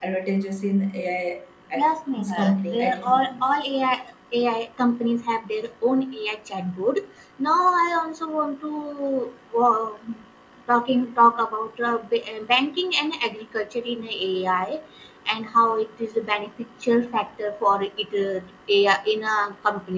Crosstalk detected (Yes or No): Yes